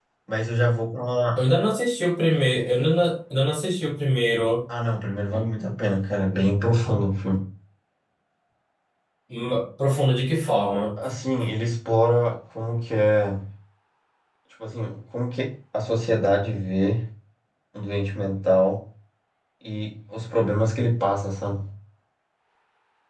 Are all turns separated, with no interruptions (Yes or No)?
Yes